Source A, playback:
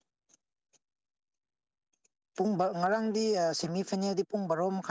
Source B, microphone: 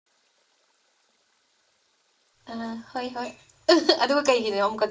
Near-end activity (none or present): present